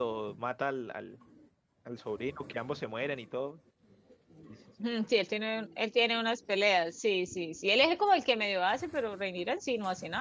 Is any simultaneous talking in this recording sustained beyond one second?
No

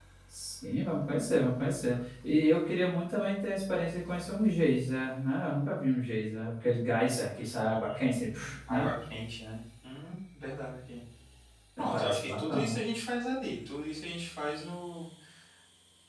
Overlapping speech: Yes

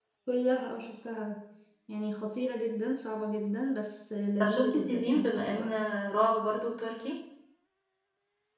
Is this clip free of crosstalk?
No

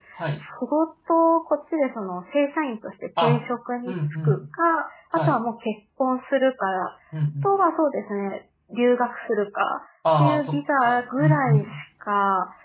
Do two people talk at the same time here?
Yes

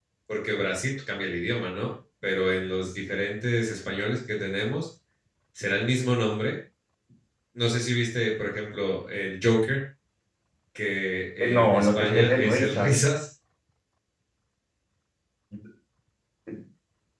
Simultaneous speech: Yes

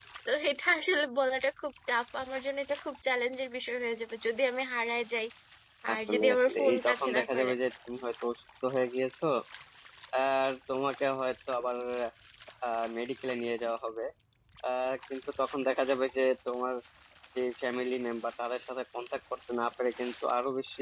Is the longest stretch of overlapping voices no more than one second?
No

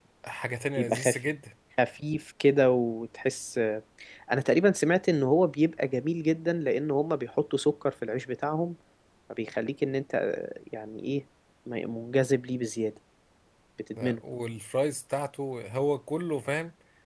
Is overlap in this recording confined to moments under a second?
Yes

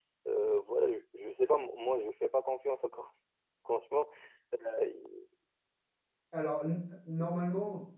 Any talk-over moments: No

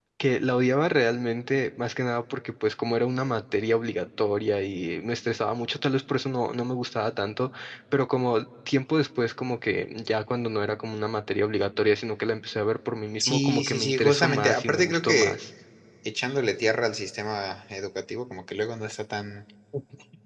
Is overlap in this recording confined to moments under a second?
No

